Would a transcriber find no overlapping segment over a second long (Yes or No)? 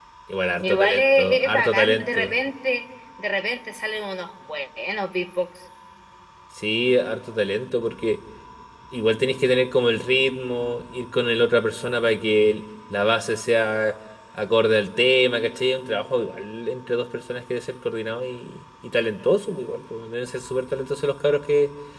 No